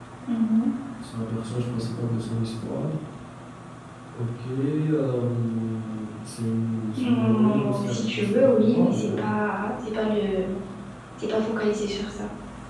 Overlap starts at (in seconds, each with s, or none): 6.9 s